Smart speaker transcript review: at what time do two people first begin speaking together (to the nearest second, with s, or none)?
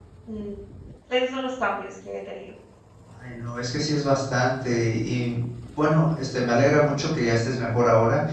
none